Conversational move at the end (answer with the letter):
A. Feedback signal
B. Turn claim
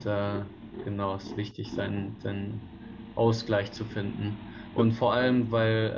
A